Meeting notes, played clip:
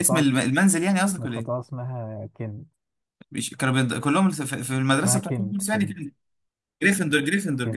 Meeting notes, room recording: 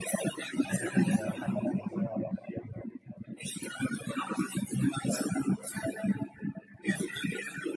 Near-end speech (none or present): present